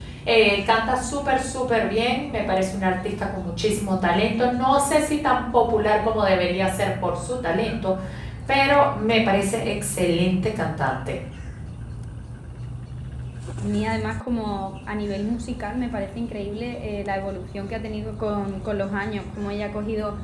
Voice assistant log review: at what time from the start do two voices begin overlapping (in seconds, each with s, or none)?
none